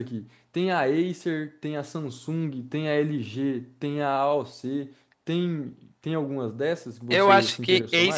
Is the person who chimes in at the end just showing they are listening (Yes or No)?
No